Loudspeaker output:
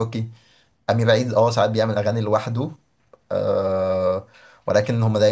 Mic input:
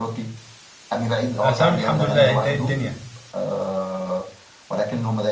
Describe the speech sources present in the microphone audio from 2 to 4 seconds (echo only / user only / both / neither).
both